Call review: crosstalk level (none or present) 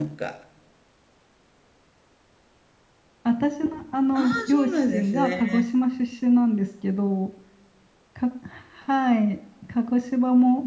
present